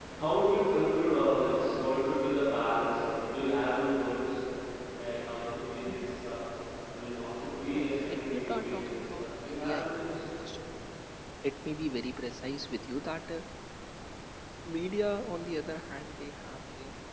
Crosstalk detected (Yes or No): Yes